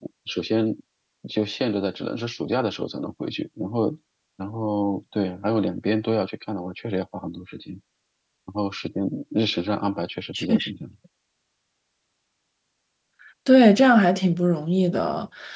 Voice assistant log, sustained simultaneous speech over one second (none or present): none